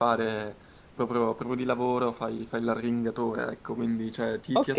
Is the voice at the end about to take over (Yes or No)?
Yes